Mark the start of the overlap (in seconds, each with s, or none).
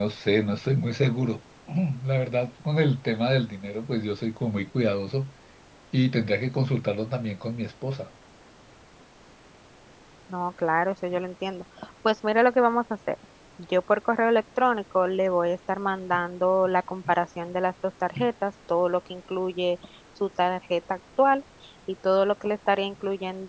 none